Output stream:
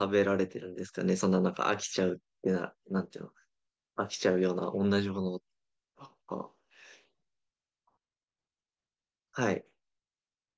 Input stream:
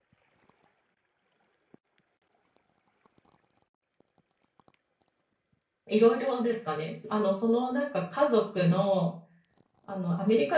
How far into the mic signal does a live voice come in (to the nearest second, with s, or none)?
6 s